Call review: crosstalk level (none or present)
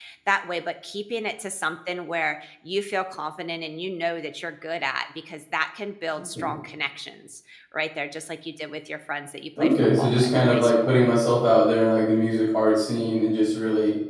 present